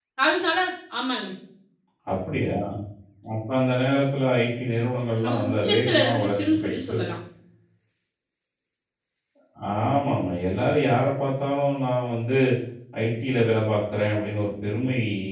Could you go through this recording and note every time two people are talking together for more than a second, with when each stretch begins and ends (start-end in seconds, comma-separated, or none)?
5.2-7.0